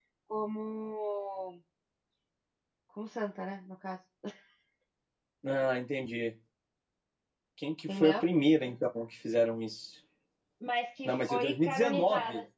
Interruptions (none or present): present